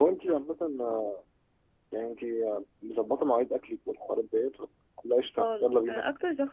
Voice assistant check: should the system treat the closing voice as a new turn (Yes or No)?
Yes